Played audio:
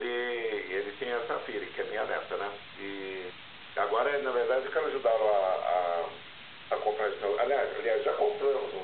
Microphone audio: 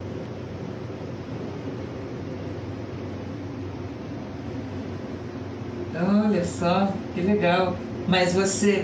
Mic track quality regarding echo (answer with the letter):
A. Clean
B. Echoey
A